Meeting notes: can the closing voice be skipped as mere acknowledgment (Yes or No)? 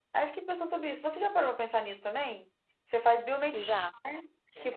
Yes